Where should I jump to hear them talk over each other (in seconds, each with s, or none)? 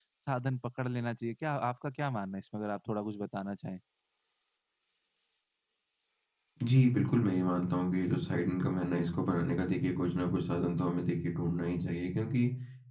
none